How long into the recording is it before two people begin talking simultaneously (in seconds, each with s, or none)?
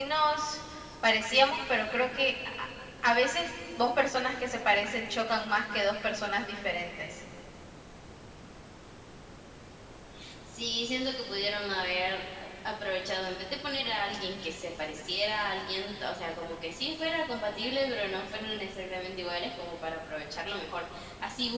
none